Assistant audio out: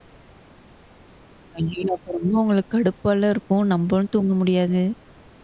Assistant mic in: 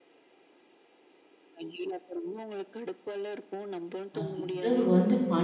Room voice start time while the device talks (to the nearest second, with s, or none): 4 s